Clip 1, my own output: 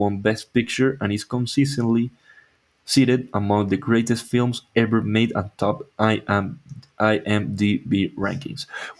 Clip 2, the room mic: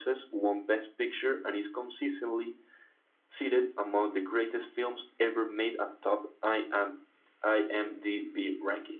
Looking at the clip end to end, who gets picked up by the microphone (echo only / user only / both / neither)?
echo only